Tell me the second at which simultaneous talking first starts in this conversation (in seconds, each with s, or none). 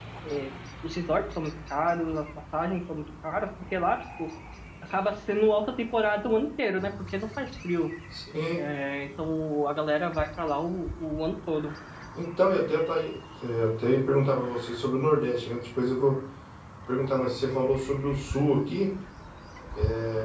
none